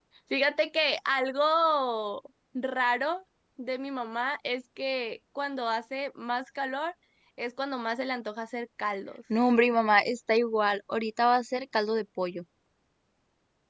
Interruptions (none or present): none